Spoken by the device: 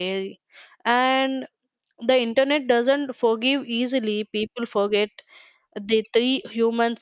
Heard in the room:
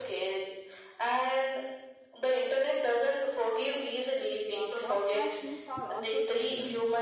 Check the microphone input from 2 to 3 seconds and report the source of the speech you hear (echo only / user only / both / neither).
echo only